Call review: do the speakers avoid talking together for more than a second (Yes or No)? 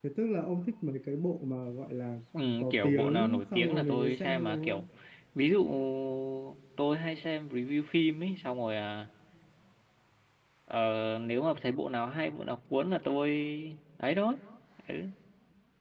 No